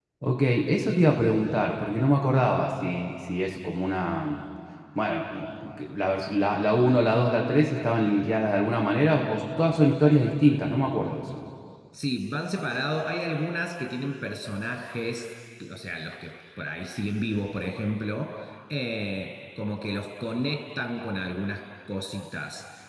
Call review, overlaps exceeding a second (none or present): none